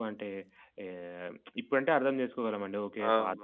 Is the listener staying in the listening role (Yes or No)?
No